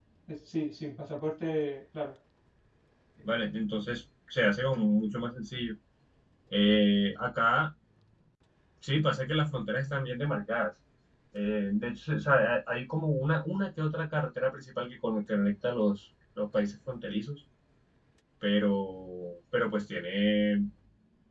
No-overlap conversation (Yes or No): Yes